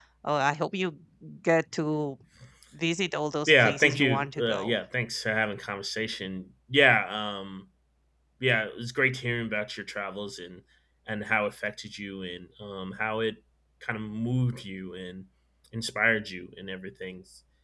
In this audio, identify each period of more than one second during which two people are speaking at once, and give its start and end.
3.5-4.7

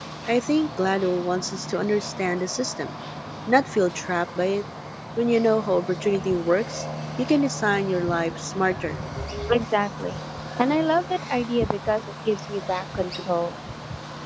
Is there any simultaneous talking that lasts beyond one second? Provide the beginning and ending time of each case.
none

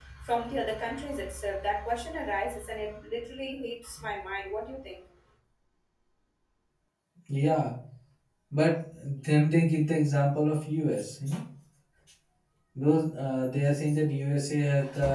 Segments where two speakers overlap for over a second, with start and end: none

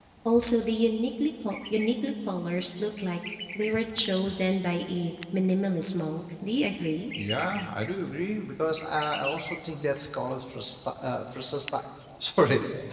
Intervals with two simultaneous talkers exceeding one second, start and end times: none

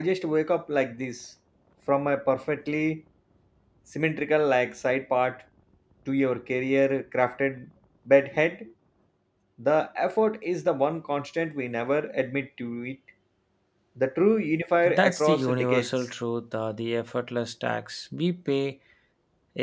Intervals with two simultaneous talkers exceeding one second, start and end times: 14.8-16.1

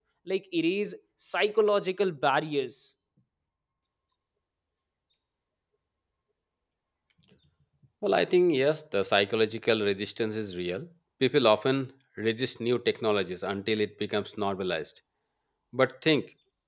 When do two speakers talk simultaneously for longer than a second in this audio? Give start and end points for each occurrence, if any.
none

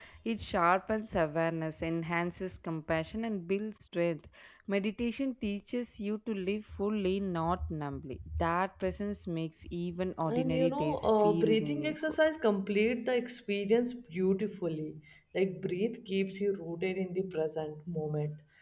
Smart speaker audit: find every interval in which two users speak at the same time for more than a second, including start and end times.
10.4-12.0

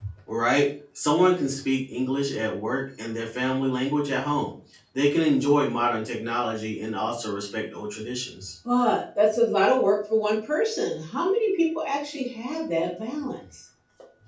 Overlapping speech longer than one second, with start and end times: none

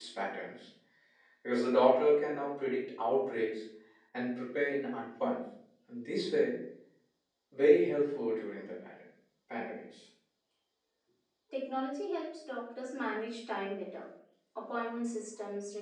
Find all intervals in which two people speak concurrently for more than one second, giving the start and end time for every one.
none

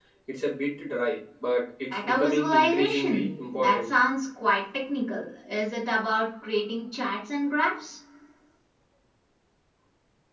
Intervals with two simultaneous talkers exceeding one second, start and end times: 1.9-3.9

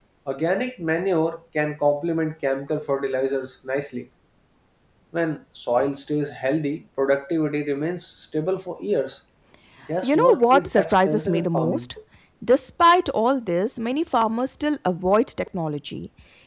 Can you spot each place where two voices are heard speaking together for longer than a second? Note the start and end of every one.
10.0-11.9

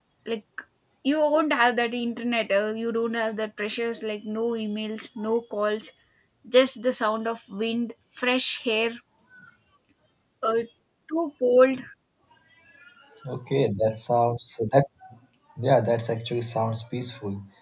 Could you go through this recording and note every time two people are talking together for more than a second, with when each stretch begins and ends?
none

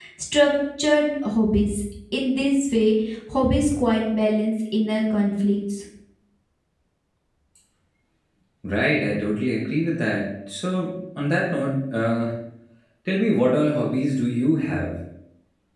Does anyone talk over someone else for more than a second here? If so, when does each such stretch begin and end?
none

